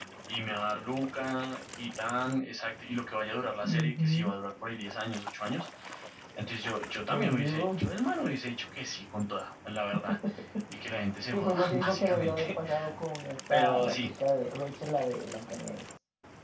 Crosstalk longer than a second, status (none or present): present